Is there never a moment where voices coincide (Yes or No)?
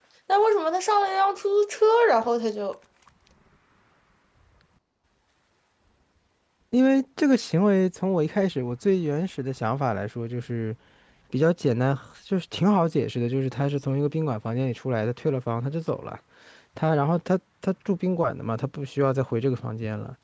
Yes